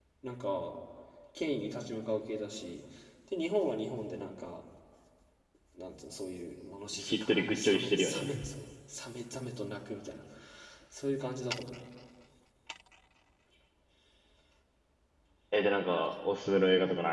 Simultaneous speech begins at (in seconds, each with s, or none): 6.9 s